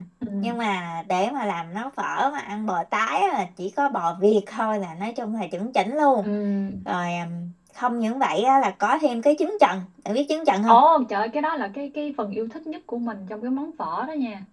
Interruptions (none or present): none